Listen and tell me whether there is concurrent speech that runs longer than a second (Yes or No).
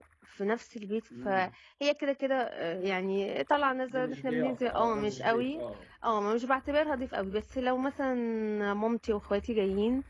Yes